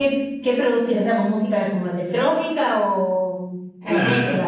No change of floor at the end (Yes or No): No